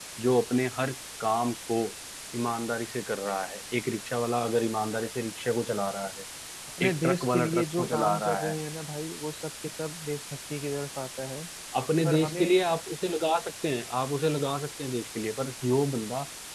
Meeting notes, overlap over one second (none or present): present